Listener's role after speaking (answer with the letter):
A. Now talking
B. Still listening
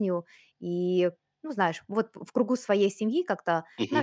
B